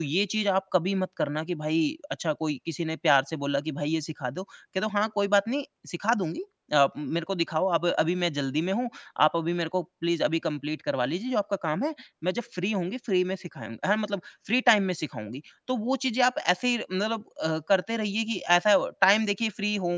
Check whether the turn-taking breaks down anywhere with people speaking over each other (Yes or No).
No